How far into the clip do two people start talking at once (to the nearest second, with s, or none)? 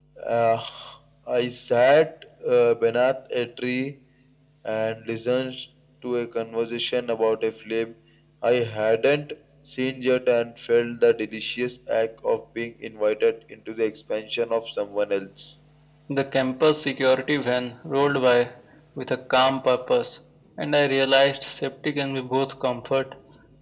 none